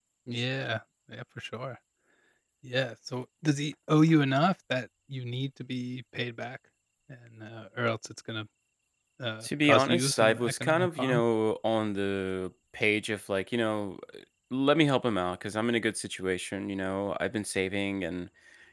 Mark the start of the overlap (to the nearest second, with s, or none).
9 s